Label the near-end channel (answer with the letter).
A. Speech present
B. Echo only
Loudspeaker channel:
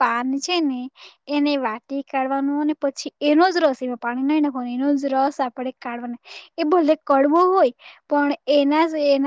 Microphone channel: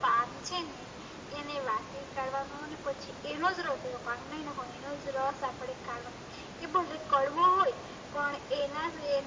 B